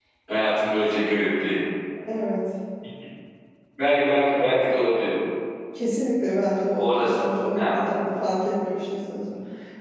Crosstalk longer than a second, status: none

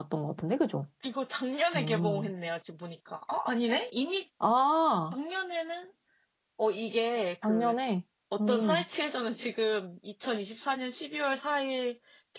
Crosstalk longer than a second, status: none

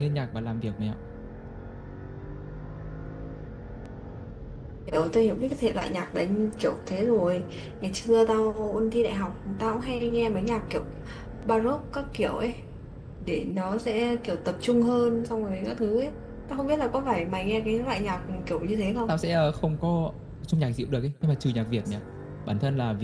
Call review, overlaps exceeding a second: none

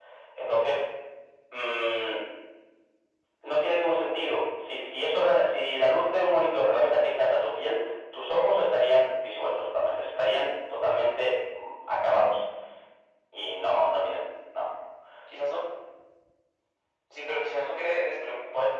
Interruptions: none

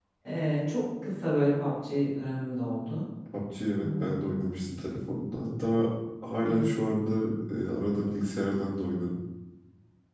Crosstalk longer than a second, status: none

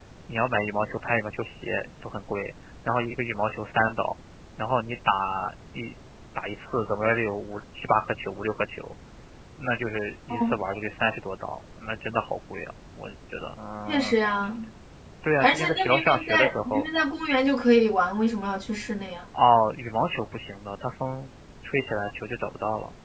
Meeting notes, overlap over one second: present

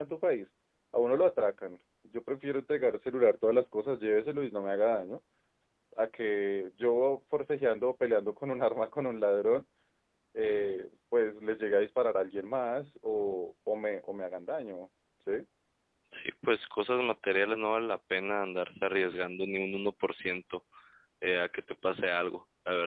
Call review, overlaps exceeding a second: none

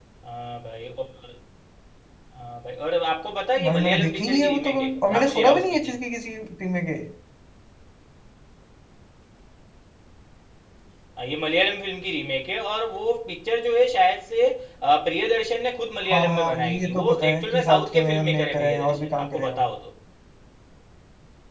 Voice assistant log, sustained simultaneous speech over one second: present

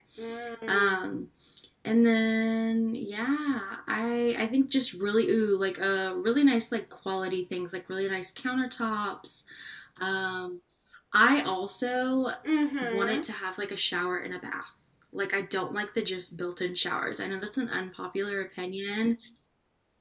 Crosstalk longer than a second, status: none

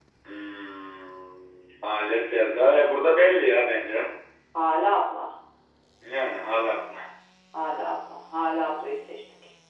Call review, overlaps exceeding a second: none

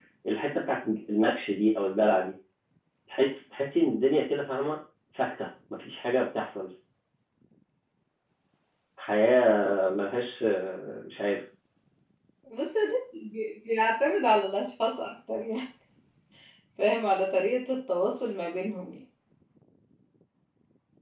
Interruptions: none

